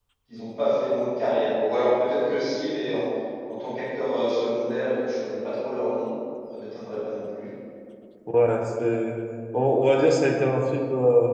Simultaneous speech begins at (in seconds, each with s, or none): none